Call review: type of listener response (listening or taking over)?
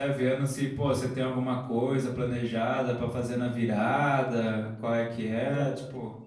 taking over